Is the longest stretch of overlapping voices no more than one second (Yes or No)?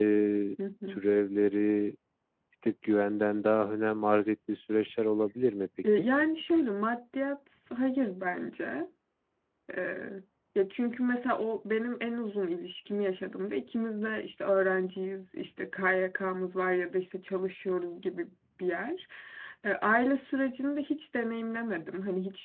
Yes